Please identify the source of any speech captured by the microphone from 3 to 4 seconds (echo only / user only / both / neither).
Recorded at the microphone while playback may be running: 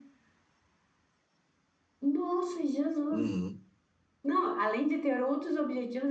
both